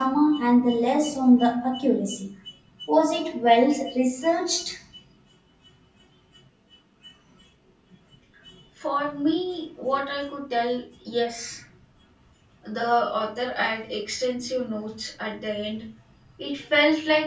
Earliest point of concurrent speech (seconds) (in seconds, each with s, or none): none